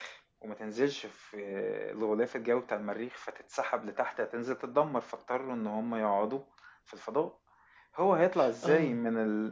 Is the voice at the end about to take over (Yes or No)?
No